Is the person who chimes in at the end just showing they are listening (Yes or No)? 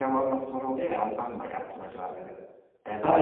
No